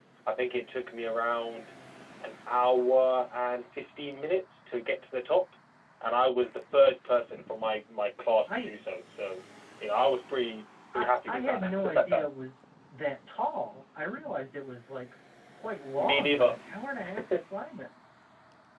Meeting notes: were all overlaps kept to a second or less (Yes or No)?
No